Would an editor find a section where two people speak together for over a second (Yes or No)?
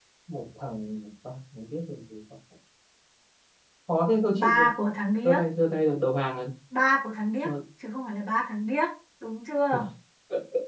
No